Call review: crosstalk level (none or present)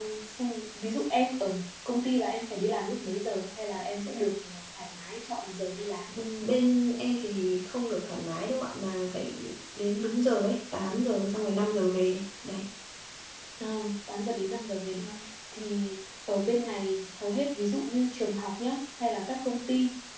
none